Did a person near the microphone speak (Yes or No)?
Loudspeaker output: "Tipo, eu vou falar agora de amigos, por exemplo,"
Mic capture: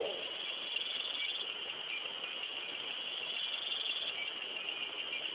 No